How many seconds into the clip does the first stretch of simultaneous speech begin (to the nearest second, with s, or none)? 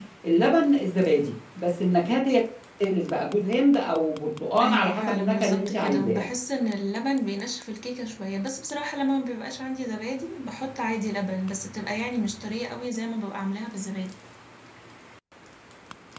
5 s